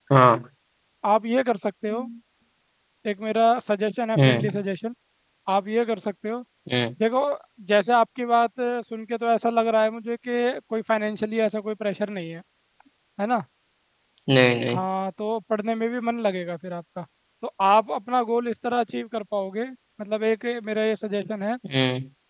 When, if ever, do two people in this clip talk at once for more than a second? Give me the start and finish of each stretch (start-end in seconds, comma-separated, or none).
none